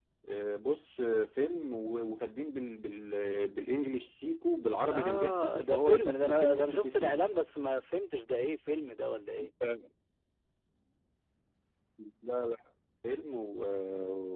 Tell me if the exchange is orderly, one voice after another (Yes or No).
No